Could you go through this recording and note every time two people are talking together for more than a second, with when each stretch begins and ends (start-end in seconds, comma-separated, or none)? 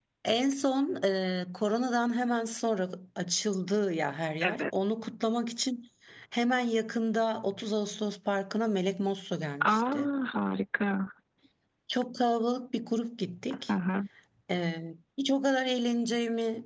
none